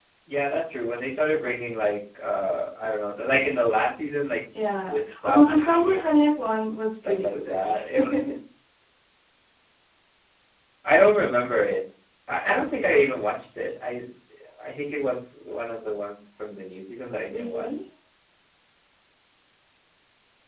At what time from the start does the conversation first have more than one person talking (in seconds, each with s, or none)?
4.9 s